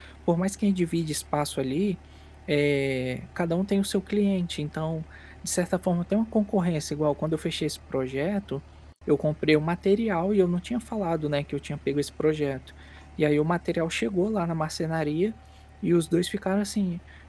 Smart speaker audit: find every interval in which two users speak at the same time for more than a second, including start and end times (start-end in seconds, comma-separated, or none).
none